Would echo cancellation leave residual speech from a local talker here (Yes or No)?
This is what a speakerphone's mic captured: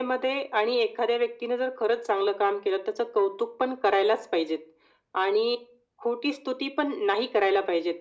No